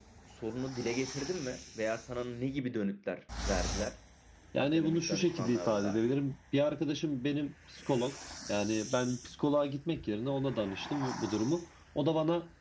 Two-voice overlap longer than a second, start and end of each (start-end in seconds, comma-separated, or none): 4.6-6.1